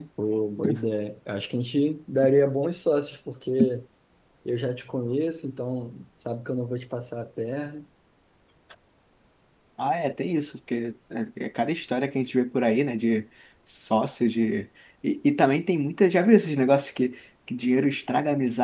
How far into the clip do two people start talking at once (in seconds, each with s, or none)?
none